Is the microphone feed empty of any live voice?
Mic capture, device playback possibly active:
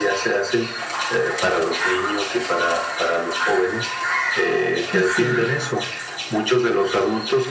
No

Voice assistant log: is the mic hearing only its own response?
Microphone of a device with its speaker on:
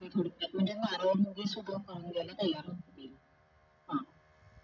Yes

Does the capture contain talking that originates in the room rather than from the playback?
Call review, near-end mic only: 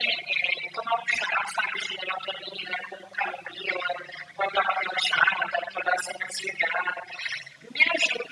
No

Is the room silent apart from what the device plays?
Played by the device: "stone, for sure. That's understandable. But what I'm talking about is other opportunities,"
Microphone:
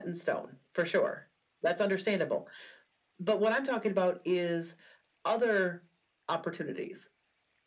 Yes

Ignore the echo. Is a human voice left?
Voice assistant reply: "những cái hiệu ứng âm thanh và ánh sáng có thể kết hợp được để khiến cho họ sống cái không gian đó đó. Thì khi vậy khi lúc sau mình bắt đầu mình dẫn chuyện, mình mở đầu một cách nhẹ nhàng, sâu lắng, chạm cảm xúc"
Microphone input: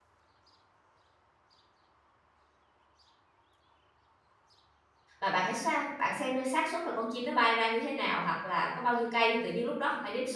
Yes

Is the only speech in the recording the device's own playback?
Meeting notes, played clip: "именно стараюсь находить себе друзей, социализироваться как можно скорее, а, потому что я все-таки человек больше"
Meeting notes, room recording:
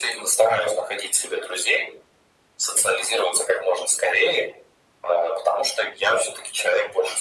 Yes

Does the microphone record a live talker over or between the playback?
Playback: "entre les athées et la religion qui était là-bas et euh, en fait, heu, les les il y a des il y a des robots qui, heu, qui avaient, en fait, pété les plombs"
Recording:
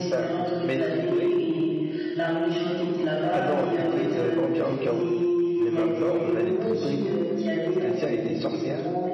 Yes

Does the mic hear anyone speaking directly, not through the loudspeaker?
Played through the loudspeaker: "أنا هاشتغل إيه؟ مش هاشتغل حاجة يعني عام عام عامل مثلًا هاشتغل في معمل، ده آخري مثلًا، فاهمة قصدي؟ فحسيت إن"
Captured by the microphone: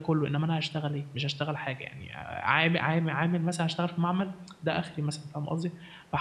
No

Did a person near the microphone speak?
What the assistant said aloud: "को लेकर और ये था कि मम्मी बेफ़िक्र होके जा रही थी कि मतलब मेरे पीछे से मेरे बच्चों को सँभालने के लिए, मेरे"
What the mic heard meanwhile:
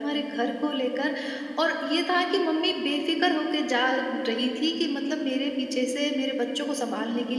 No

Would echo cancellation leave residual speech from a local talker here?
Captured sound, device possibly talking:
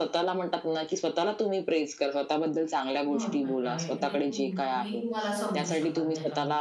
Yes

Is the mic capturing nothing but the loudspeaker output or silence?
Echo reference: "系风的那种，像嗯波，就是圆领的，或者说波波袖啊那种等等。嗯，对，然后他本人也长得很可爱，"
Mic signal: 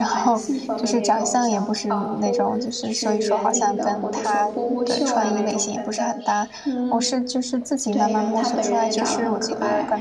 No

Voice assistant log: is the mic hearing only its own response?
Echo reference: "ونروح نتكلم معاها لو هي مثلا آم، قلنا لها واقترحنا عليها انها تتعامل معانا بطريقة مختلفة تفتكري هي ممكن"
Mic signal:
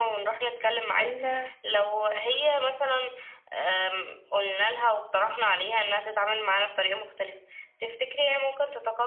No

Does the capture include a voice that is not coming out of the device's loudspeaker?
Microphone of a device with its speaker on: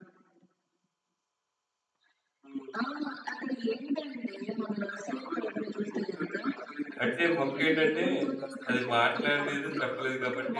Yes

